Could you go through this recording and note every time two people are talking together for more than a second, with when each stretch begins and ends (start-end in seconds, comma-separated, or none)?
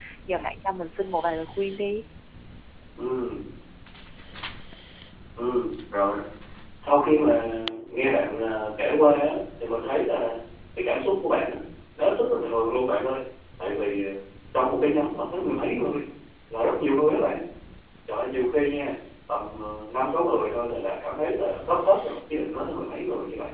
none